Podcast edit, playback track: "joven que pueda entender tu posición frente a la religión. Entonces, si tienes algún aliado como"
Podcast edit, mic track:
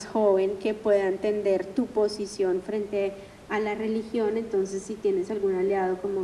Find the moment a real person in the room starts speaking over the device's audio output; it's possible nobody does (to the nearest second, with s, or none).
none